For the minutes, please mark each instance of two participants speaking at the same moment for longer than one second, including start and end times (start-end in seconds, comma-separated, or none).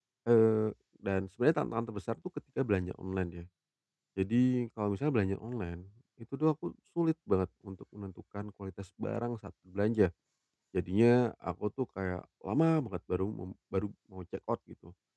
none